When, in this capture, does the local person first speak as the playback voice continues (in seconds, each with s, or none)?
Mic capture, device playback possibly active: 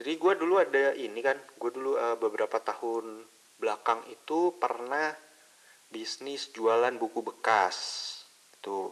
none